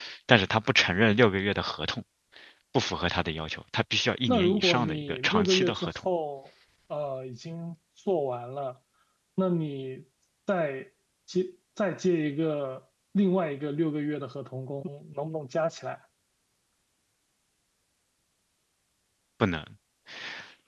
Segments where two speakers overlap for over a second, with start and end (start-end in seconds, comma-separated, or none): 4.3-5.9